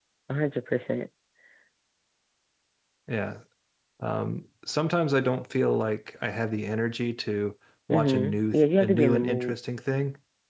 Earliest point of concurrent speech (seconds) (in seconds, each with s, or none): 7.9 s